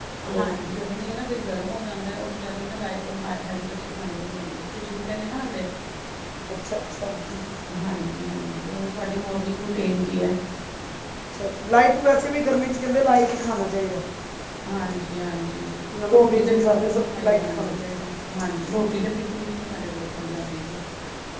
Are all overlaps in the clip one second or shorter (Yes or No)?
No